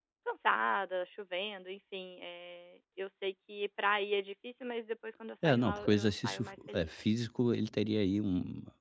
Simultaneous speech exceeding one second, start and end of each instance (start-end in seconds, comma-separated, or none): 5.4-6.9